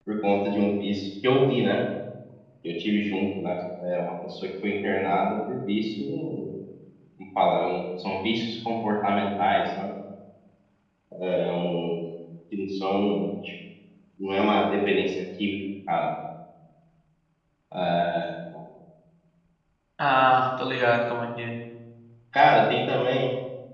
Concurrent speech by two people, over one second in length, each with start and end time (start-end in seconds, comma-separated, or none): none